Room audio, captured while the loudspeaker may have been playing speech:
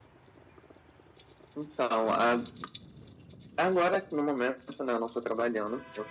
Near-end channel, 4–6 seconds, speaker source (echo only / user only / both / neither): echo only